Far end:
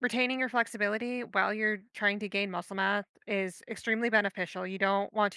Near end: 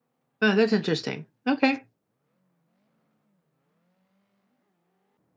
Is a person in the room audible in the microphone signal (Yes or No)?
Yes